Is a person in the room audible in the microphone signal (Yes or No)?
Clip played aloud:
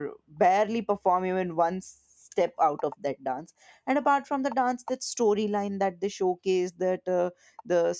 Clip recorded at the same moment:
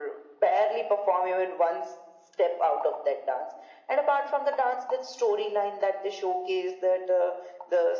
No